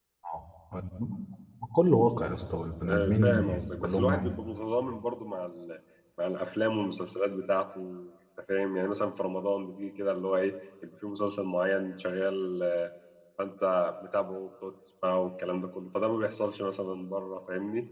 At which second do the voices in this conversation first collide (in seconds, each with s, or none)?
2.8 s